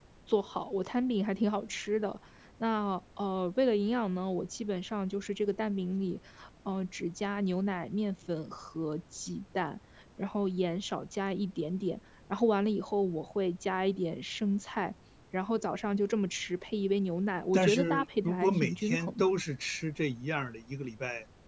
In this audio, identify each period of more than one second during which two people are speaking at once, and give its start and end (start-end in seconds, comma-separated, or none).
17.5-19.3